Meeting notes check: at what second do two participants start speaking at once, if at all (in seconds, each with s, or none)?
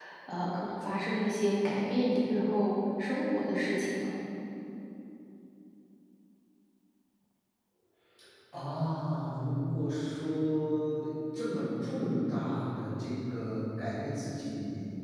none